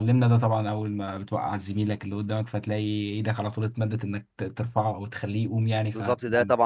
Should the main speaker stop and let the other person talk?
Yes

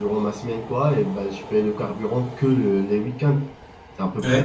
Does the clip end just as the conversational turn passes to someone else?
Yes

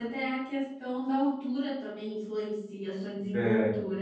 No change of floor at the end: No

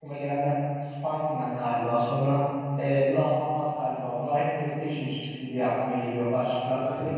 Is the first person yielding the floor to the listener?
No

